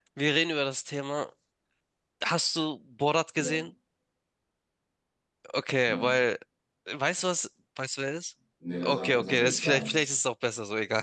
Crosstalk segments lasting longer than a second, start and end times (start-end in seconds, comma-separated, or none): 8.8-10.2